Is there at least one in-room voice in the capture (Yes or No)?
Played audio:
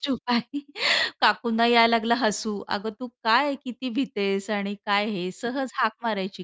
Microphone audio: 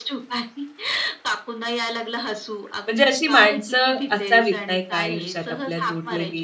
Yes